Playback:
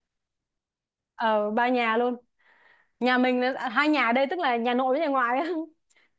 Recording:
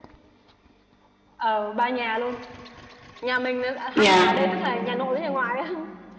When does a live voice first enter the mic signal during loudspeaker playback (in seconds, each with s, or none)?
4.0 s